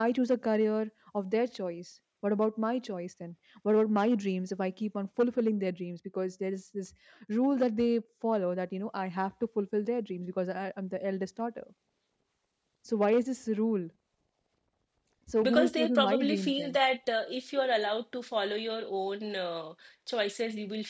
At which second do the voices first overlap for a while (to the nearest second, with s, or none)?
15 s